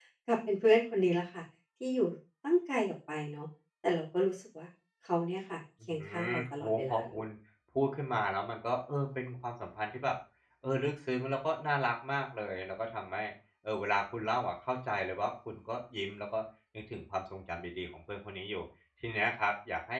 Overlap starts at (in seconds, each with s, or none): 5.9 s